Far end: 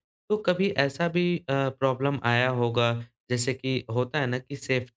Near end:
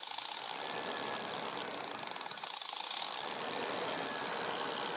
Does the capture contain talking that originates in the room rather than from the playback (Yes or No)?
No